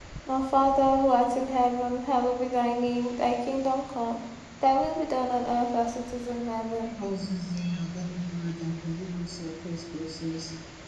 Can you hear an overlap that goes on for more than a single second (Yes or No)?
No